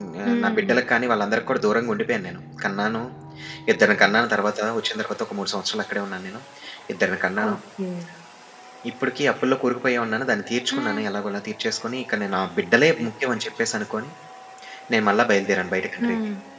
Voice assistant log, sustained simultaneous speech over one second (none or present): none